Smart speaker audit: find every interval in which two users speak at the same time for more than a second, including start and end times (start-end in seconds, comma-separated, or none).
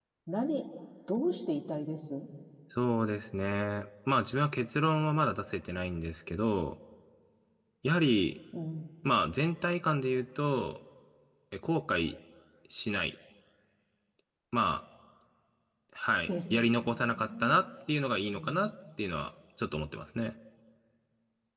16.3-17.6